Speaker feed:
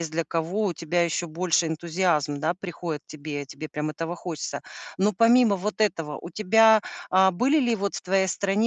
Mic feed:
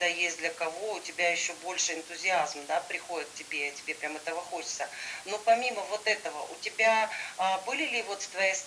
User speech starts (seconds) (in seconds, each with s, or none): none